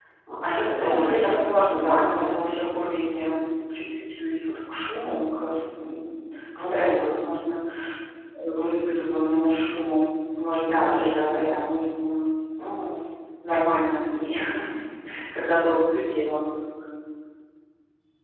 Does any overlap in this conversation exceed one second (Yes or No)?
Yes